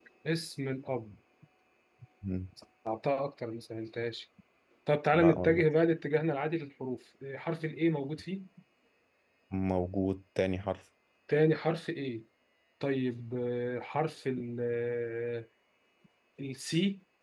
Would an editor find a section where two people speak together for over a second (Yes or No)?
No